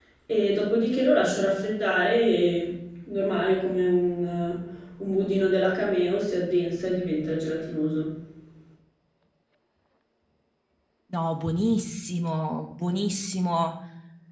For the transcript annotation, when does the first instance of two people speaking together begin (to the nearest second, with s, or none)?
none